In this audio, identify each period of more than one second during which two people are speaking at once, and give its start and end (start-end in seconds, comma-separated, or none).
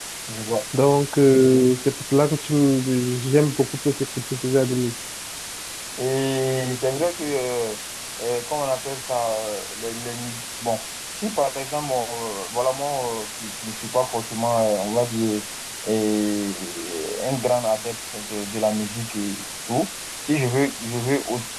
none